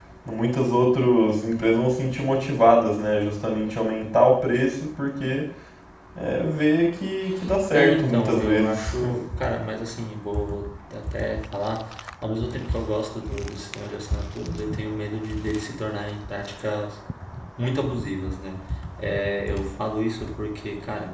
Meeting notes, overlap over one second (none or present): present